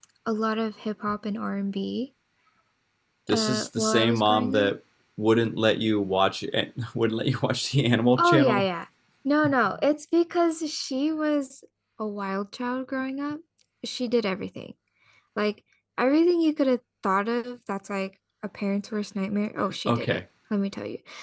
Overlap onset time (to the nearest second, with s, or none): 3 s